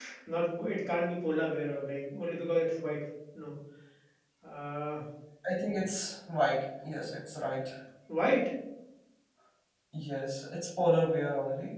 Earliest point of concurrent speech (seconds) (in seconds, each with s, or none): none